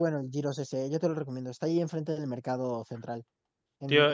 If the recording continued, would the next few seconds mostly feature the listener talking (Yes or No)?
Yes